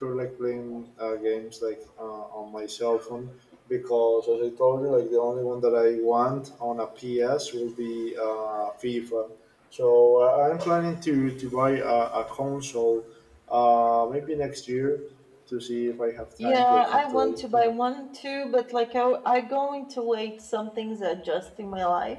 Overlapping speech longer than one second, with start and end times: 16.4-17.7

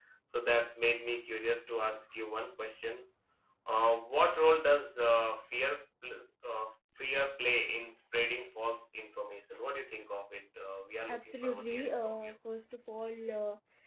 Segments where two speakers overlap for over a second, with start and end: 11.1-12.3

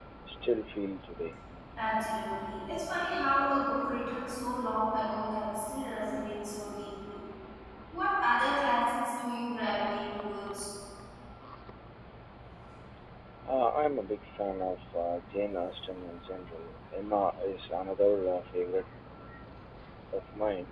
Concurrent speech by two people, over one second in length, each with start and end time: none

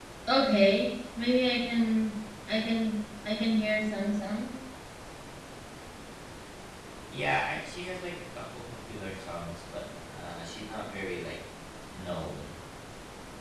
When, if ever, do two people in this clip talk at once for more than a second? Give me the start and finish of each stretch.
none

